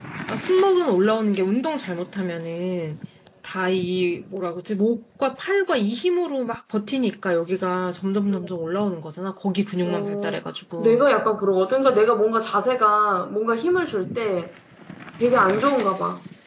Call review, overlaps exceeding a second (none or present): none